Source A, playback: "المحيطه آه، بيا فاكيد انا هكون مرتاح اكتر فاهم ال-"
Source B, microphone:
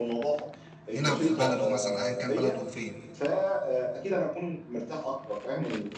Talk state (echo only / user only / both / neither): both